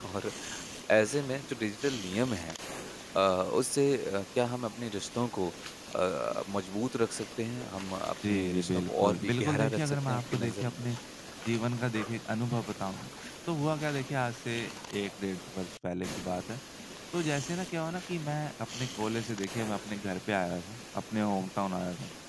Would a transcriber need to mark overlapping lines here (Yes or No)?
Yes